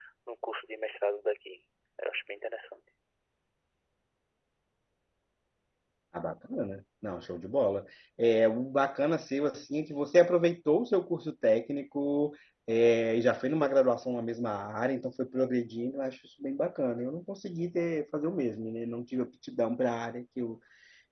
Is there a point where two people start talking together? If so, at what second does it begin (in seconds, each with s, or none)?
none